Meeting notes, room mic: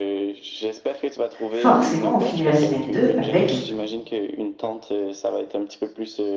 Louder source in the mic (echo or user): user